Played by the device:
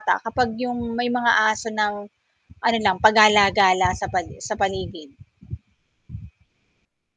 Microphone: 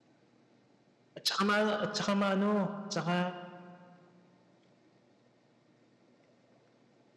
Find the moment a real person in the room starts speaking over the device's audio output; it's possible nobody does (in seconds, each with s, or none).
1.2 s